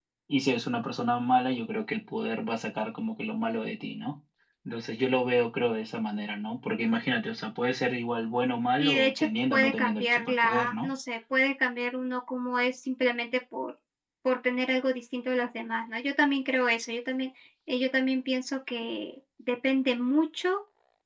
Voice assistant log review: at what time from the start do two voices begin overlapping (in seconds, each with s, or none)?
8.8 s